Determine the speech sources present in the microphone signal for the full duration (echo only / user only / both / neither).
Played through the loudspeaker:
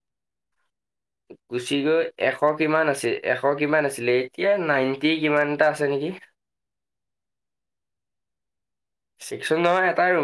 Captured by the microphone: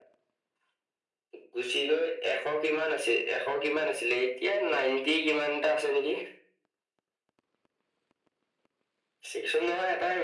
echo only